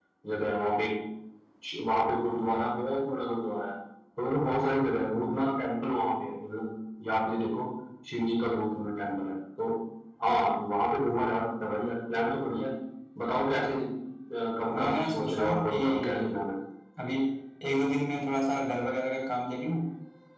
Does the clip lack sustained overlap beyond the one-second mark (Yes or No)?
No